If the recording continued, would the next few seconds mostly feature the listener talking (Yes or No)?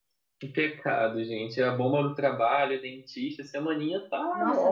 Yes